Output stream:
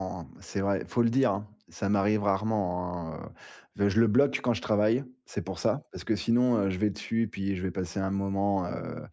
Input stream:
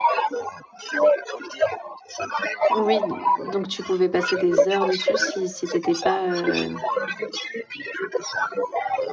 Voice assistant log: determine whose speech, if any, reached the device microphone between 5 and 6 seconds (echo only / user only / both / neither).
both